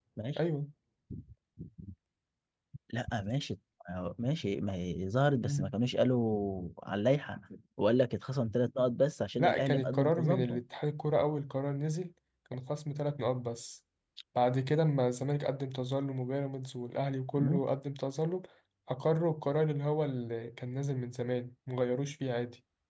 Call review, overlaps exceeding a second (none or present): present